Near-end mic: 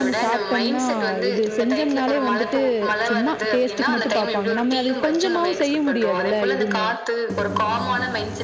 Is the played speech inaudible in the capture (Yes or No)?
No